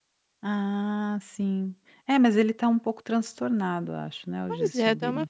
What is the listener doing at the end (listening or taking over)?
taking over